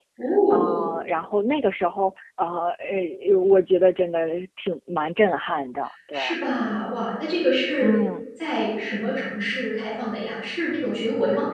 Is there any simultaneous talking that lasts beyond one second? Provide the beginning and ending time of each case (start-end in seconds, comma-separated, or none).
none